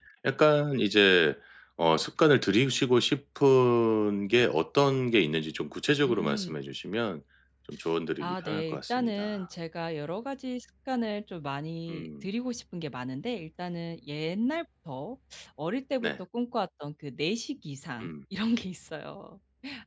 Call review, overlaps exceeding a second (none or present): present